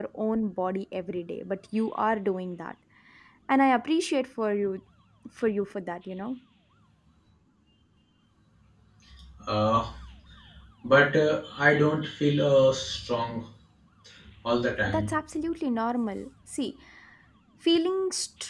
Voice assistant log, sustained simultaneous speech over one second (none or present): none